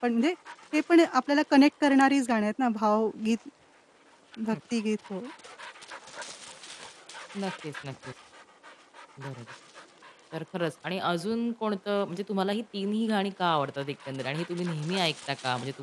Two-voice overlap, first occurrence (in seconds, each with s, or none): none